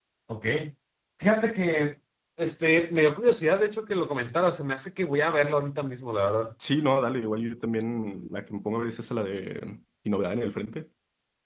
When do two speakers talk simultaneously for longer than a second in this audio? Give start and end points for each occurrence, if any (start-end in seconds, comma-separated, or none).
none